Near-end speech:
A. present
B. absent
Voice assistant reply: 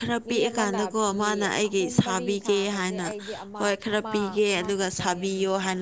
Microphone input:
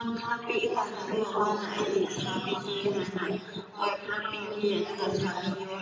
B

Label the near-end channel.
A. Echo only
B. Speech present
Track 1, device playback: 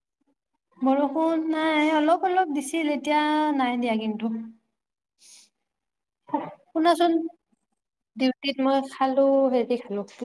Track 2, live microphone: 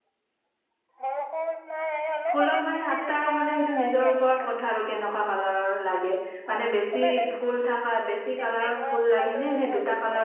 B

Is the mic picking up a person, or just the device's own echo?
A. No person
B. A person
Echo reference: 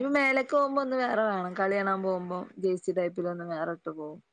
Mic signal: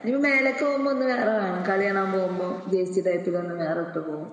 A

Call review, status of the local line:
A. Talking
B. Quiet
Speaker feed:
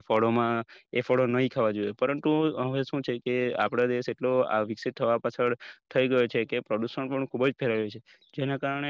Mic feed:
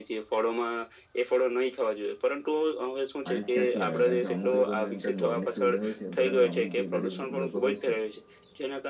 A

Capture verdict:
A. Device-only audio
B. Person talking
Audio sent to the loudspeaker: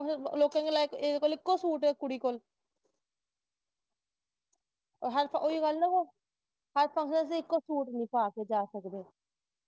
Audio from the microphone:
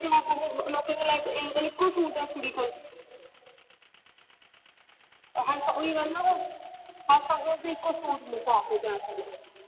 A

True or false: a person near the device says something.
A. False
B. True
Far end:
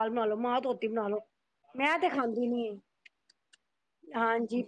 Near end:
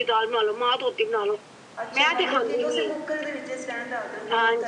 B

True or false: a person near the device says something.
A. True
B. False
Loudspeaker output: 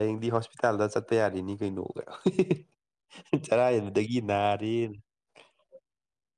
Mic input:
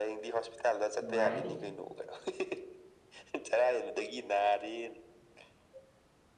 A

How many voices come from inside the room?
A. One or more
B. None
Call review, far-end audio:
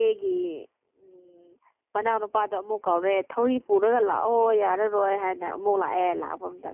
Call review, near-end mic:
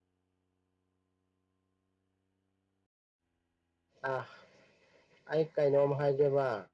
A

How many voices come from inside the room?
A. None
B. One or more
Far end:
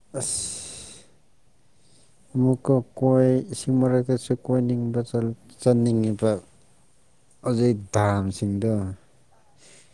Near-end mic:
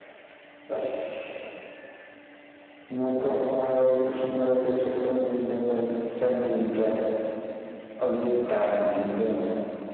A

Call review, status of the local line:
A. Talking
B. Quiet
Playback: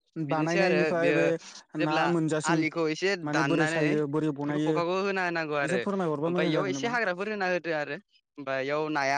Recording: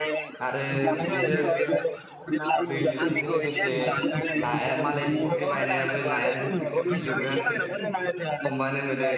A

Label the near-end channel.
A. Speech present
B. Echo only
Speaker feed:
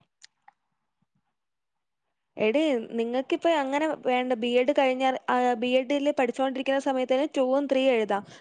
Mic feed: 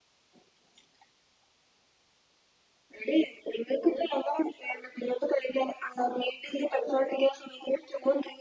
B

